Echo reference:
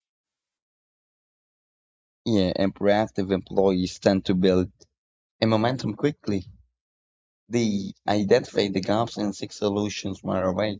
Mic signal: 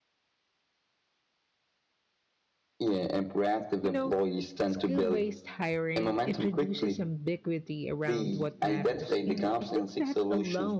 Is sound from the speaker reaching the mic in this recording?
Yes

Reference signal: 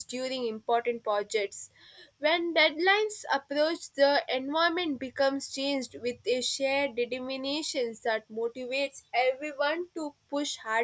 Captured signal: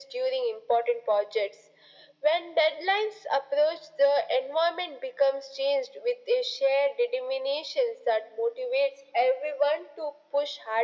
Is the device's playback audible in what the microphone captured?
Yes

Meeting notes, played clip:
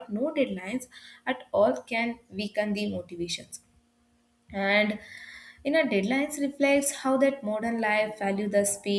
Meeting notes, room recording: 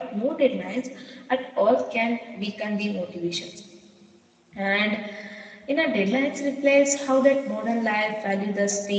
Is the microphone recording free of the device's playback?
No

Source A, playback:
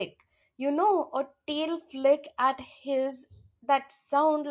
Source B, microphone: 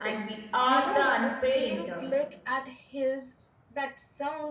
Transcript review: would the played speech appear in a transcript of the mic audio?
Yes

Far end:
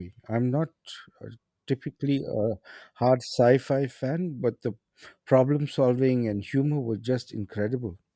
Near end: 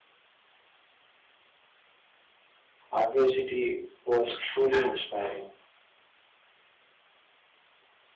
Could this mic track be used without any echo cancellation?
Yes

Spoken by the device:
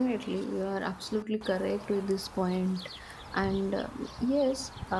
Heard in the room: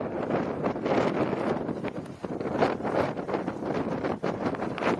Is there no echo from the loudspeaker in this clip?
Yes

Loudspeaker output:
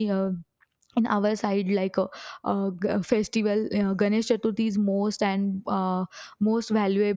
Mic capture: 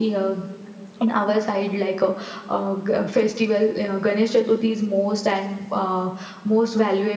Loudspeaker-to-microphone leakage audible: Yes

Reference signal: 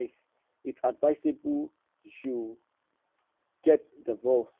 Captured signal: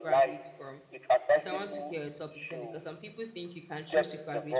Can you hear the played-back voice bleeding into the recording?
Yes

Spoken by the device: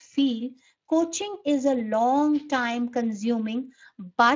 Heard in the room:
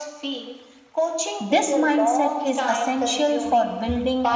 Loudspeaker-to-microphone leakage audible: Yes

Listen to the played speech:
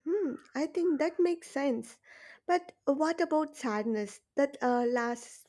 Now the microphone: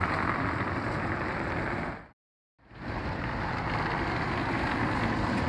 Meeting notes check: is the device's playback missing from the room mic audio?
Yes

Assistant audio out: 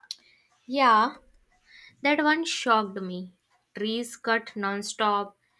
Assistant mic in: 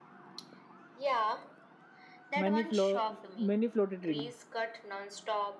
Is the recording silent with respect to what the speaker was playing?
No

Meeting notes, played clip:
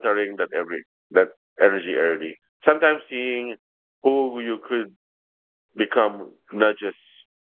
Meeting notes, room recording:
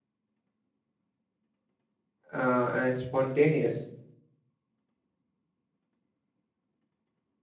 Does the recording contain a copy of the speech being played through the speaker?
No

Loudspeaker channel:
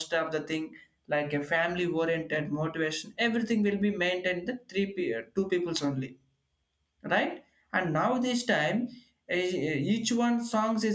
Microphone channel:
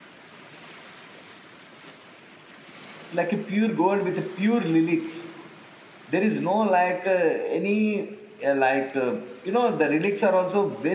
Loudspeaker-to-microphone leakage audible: No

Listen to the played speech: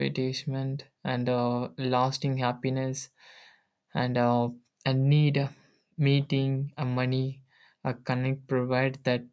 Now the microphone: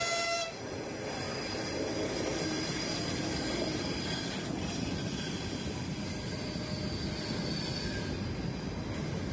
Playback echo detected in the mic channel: No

